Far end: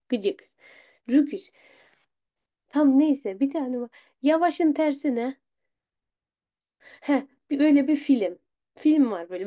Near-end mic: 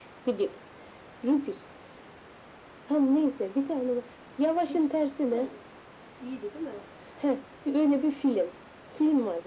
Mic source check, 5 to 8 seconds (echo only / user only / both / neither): both